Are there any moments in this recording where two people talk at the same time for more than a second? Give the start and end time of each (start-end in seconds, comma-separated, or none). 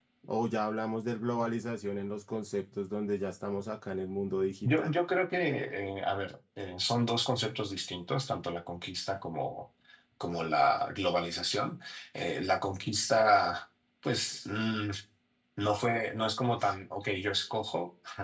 none